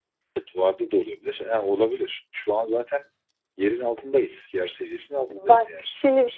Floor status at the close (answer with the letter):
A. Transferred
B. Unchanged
A